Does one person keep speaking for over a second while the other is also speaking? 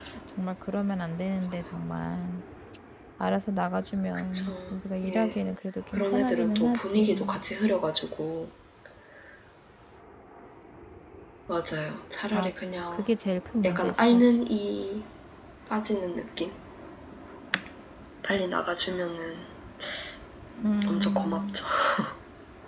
Yes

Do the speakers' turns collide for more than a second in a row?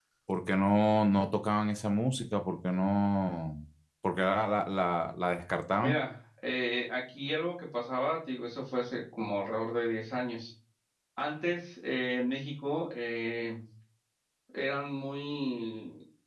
No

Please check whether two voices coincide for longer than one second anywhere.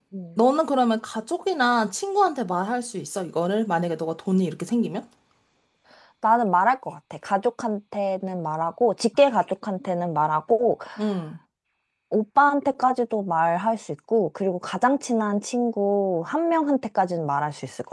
No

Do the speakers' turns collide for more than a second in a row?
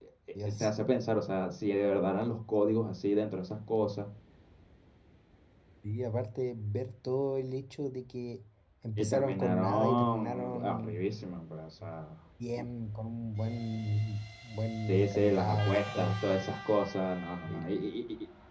Yes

